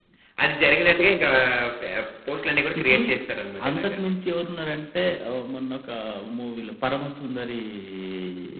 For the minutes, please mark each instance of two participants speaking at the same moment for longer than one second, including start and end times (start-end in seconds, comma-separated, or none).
none